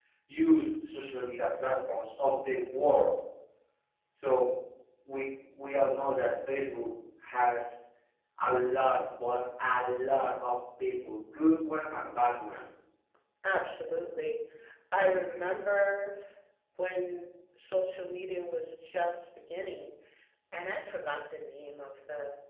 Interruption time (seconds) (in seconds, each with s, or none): none